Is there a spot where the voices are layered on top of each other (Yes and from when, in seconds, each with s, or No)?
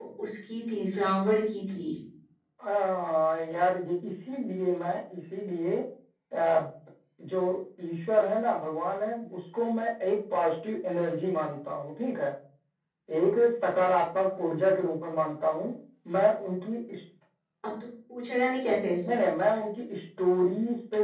No